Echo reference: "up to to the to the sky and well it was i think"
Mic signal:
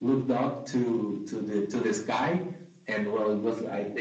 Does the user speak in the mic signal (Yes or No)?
No